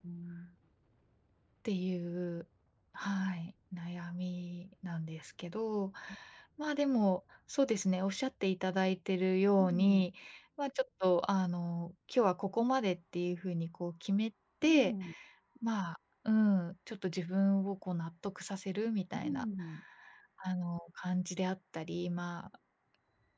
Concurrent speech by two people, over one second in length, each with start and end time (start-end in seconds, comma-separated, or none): none